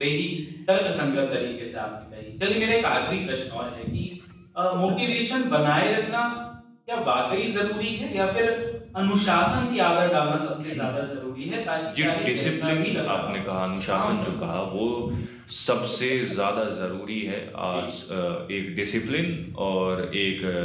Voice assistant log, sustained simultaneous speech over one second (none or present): present